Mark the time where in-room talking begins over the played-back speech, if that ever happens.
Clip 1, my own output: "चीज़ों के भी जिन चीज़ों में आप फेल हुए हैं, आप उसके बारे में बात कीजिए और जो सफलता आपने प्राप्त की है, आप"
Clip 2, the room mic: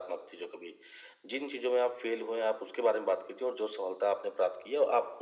none

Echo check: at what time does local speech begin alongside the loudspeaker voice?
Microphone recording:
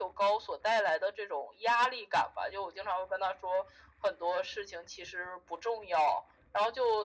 none

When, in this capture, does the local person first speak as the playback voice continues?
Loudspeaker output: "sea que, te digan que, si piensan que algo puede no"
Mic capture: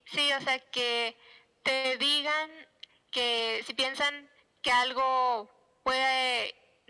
none

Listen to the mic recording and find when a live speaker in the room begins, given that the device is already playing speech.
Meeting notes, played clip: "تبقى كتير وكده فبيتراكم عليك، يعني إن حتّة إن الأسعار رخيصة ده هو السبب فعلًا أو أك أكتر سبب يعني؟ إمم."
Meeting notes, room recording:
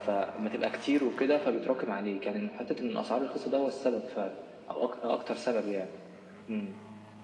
none

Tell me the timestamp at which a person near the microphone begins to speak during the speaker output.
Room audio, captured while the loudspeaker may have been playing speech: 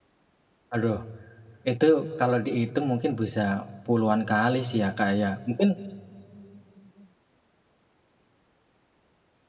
1 s

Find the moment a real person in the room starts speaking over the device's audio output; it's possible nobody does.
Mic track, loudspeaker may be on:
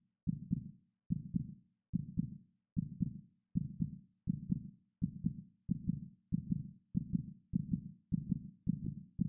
none

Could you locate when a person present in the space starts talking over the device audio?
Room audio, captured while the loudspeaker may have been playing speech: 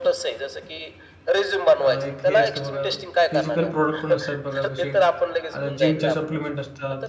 2 s

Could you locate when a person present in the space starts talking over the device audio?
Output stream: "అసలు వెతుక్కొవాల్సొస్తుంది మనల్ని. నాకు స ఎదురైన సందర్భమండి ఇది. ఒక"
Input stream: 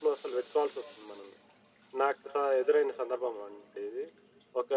none

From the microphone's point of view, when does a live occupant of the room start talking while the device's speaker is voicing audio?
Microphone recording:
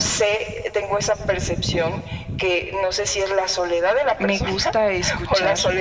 4 s

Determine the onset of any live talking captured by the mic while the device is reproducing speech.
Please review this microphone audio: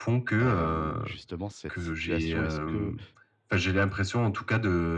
0 s

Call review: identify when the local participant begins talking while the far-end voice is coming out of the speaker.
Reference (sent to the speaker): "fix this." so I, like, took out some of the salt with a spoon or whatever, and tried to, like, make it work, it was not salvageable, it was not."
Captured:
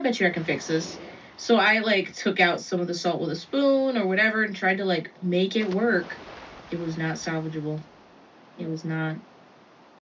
none

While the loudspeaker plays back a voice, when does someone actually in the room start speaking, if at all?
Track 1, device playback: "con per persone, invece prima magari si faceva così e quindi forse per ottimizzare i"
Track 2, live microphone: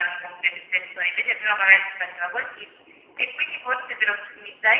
none

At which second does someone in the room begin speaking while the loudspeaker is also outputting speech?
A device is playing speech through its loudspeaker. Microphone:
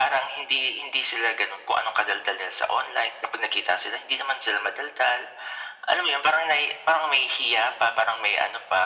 none

